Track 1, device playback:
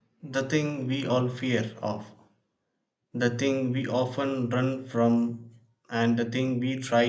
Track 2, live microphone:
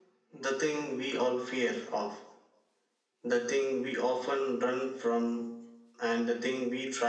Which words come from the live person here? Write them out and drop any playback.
none

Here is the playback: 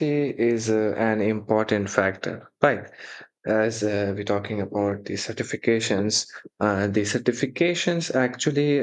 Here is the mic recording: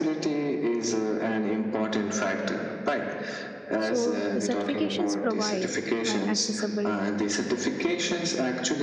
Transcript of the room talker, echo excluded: So the certifications provide an accessible

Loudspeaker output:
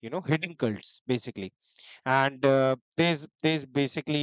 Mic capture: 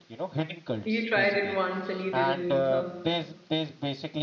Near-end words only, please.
You tried it once and you didn't meet her.

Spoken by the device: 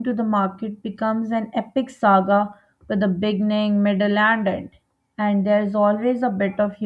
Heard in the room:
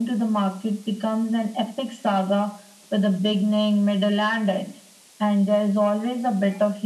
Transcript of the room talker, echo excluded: none

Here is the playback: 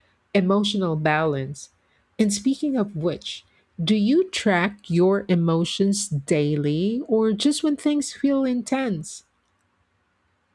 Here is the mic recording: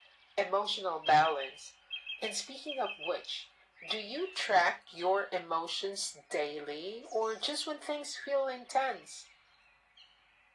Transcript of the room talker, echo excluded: none

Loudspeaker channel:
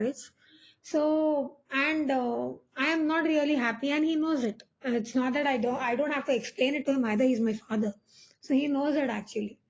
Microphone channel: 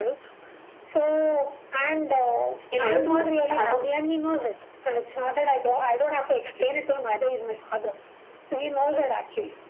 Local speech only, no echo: in order to have a

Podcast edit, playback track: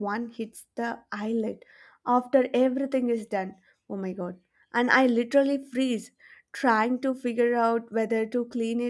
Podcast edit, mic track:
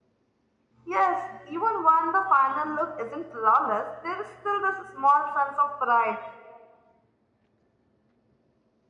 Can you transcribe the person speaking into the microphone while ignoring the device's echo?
Yes, even when the final look isn't flawless, there is still this small sense of pride

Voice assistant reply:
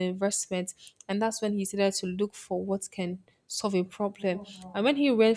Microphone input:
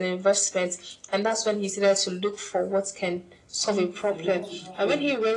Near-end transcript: who I want to become.

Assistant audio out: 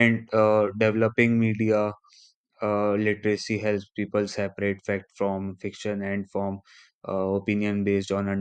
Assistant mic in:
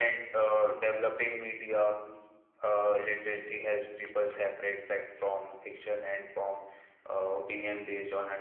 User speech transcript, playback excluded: none

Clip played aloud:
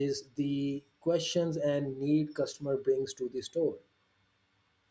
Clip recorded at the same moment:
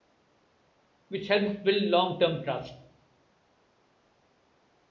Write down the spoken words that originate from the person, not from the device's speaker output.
which helps build long term trust.

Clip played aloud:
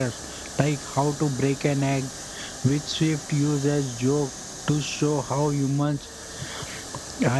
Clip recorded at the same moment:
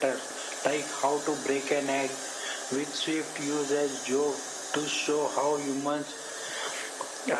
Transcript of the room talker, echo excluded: none

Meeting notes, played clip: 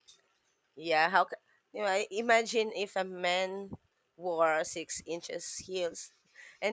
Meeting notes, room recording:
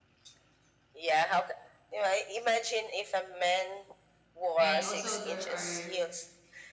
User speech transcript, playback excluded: and also there are

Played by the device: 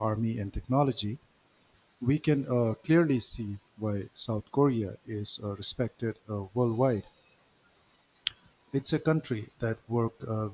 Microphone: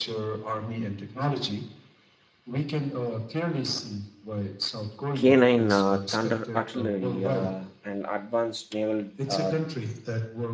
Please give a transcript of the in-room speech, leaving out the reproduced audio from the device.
K nine uh, Thunder artillery uh, and advanced naval uh,

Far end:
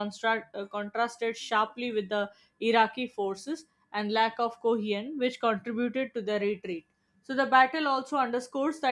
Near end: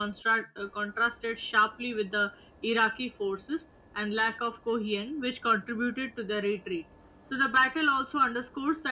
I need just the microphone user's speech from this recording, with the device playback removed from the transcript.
none

